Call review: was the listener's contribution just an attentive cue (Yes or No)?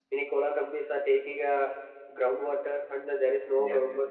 Yes